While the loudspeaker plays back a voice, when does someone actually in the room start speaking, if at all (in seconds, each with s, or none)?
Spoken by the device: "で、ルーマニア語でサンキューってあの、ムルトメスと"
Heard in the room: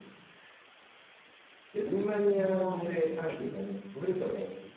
2.3 s